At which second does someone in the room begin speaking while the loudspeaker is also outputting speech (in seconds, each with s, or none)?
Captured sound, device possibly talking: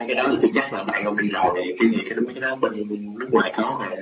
none